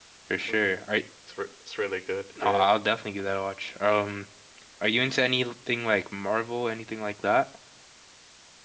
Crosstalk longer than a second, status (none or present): none